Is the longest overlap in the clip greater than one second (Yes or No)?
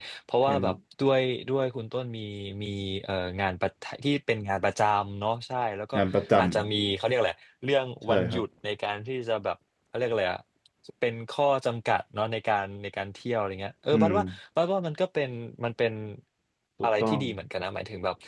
No